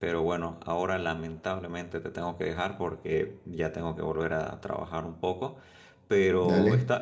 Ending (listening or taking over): listening